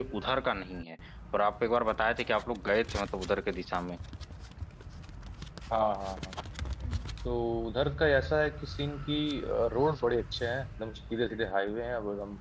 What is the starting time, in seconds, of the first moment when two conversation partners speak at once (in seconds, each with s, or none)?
none